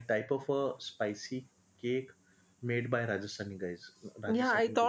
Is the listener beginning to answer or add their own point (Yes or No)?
Yes